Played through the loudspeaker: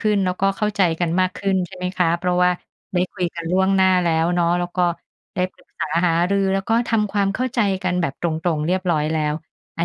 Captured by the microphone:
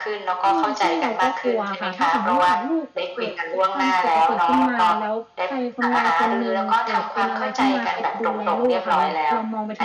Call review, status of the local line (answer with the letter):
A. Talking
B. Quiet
A